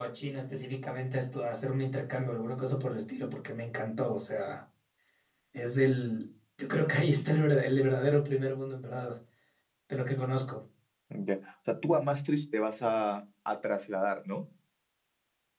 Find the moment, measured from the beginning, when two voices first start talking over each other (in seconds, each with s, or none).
none